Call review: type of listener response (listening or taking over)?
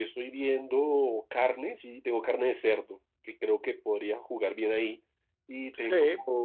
taking over